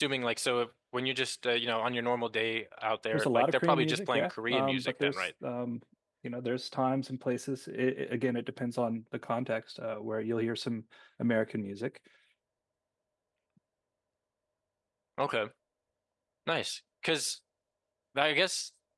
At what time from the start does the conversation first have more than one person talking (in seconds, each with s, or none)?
3.1 s